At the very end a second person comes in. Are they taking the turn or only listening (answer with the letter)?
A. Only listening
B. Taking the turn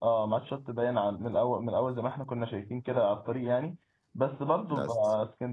A